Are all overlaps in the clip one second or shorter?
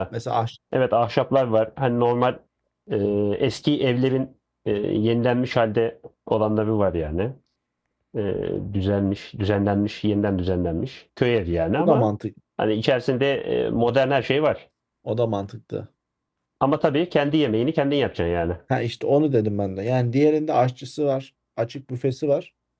Yes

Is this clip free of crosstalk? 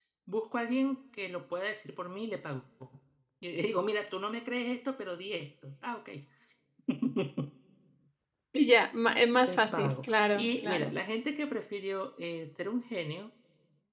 No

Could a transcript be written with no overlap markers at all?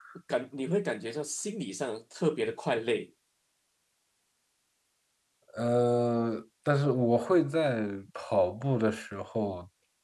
Yes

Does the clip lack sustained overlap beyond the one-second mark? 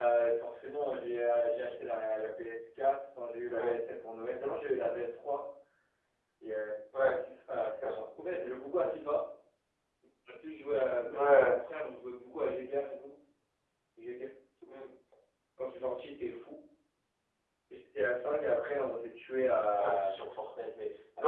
Yes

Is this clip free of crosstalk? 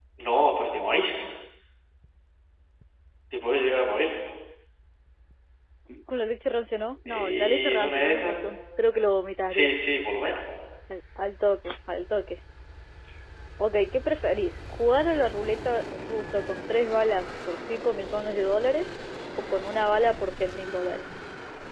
No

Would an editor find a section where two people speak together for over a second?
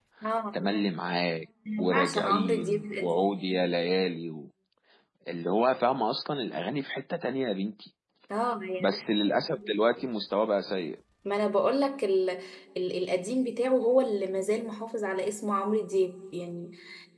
Yes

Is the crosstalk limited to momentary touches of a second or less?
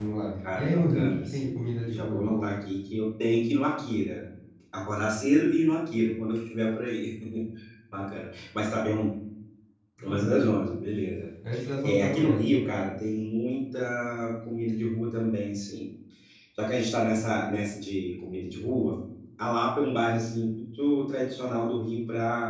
No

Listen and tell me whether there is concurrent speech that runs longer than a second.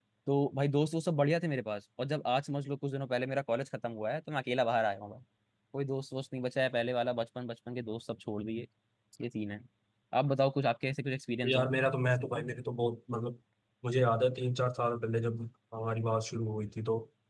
No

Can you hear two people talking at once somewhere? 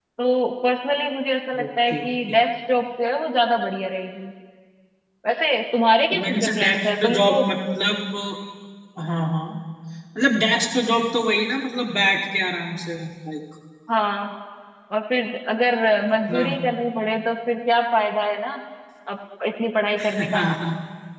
Yes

